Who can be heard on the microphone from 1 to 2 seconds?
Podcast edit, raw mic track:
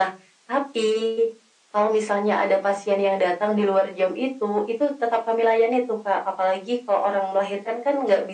echo only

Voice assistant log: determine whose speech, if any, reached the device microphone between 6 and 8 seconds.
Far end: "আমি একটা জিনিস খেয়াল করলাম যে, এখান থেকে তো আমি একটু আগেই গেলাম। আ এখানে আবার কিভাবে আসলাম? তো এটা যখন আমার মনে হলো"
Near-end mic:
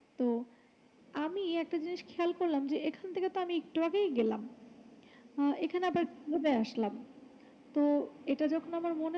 echo only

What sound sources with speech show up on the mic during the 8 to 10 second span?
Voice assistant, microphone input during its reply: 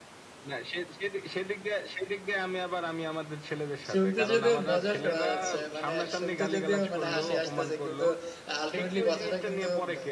both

